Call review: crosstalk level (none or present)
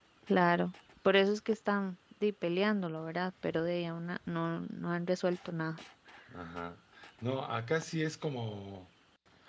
none